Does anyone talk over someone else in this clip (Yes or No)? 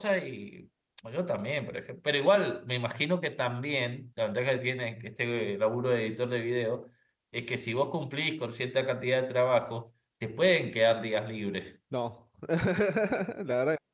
No